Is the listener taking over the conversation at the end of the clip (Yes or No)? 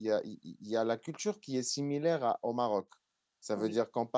No